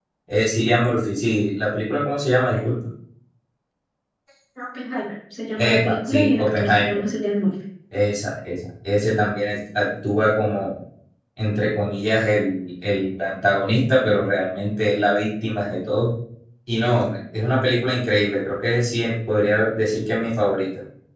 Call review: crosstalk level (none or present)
present